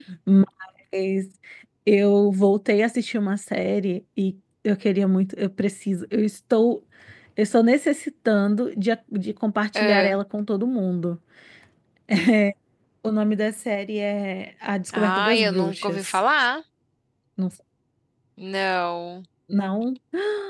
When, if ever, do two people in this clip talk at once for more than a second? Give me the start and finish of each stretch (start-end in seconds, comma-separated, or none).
14.9-16.2